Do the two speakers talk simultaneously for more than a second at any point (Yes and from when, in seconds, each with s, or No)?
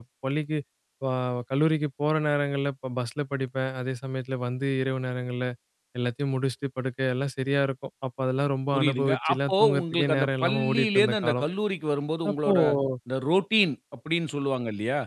Yes, from 8.7 s